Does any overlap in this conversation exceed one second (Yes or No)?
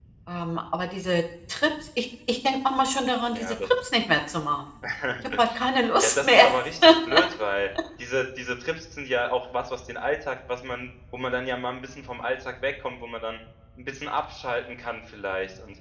No